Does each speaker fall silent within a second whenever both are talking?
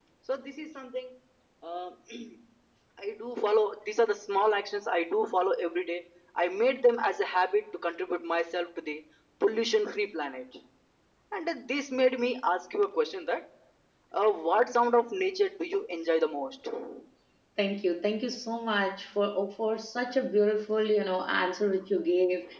Yes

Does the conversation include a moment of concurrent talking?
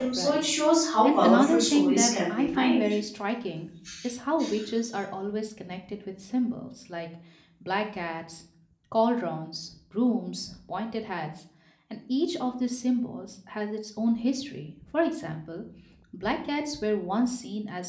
Yes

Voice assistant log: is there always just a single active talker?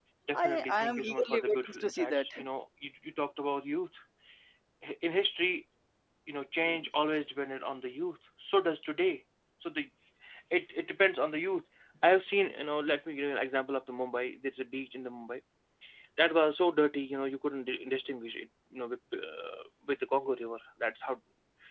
No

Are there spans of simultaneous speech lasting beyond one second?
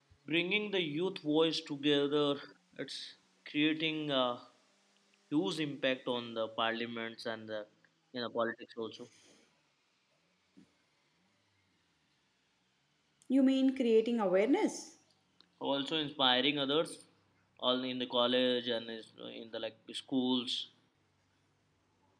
No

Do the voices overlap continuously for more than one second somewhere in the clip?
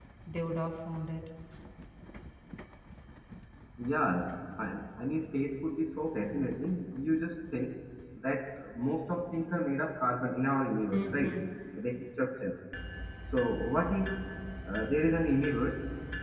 No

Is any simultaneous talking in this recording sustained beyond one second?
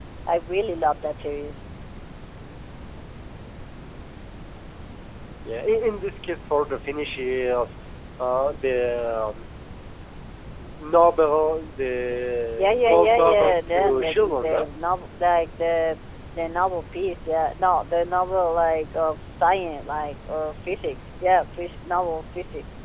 Yes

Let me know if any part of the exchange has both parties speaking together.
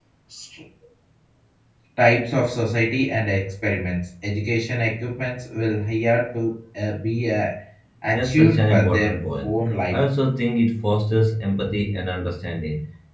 Yes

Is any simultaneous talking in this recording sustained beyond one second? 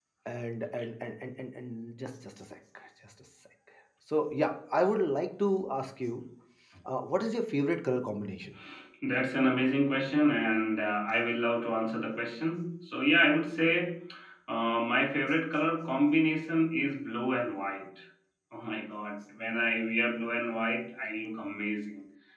No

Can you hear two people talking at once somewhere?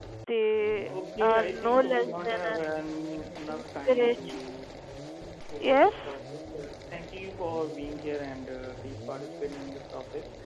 Yes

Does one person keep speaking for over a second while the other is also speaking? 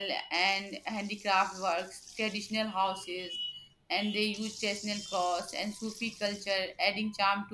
No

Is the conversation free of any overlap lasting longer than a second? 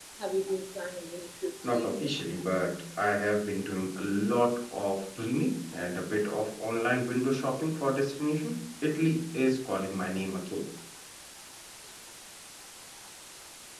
Yes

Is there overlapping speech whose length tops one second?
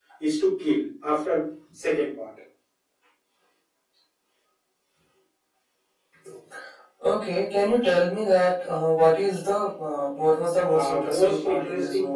Yes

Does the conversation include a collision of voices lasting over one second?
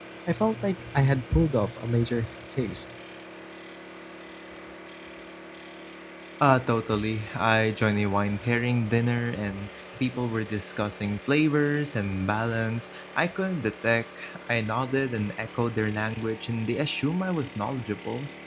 No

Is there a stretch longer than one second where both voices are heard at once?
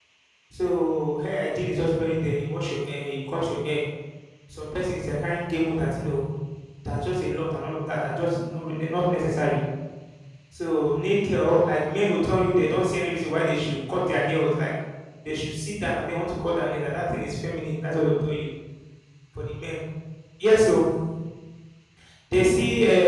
No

